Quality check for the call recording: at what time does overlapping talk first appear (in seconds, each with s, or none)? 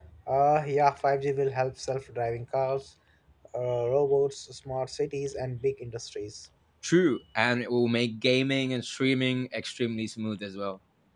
none